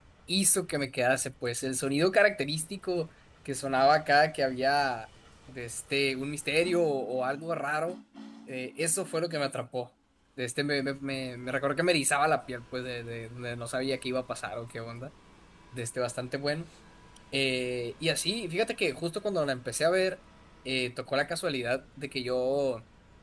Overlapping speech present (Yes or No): No